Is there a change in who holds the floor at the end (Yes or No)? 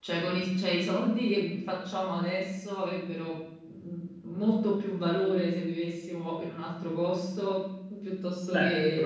Yes